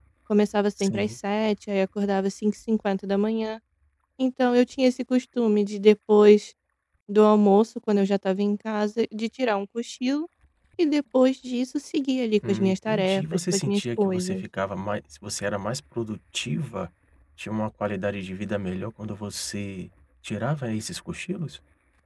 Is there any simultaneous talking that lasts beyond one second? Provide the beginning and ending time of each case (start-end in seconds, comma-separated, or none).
12.5-14.4